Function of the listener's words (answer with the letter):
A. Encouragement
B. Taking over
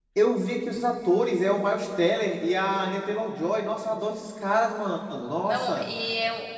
B